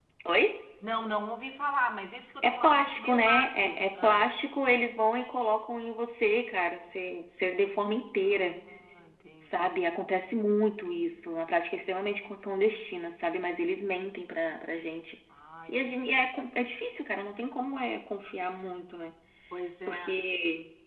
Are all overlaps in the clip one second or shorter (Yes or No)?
No